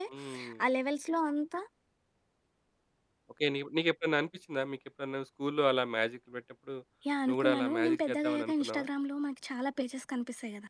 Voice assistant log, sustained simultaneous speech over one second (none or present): present